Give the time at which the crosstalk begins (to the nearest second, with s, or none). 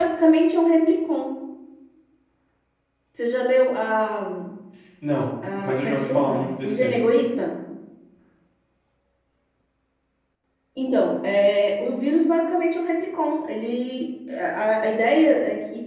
6 s